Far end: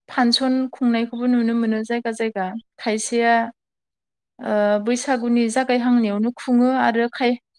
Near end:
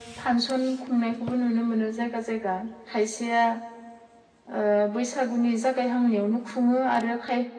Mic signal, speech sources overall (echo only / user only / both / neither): echo only